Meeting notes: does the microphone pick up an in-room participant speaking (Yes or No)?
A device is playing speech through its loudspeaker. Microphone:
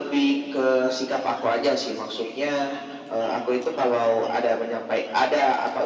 No